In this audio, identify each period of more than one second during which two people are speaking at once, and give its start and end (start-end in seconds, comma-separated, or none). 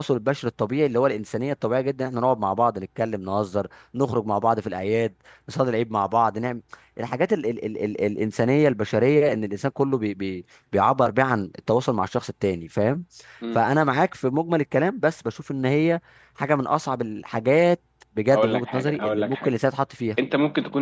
18.3-19.6